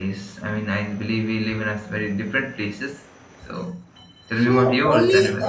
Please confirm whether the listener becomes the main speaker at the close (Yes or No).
Yes